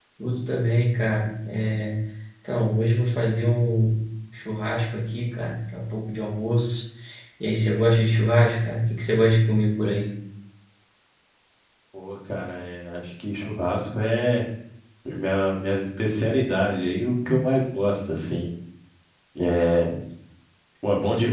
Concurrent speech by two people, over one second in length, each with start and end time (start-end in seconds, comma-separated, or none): none